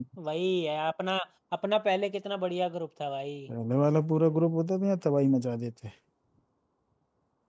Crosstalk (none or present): none